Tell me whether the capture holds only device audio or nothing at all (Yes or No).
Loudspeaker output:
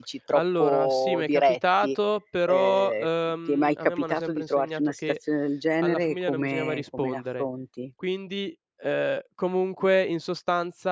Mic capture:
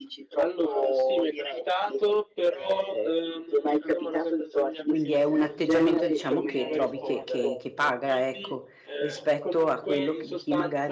No